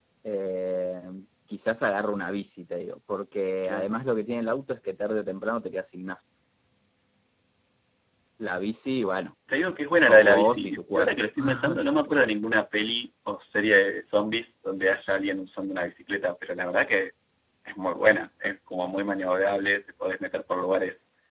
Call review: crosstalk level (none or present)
present